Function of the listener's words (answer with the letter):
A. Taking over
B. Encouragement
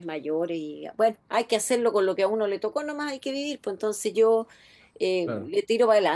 B